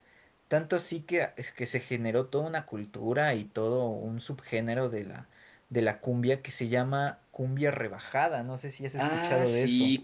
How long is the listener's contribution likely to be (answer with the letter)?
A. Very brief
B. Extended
B